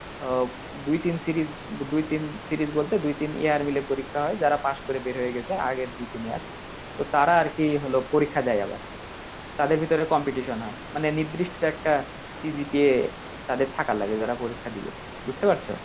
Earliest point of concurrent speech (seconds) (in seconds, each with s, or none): none